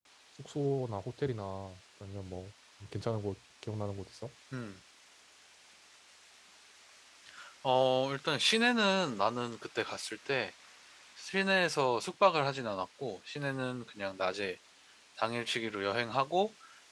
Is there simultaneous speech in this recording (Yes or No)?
No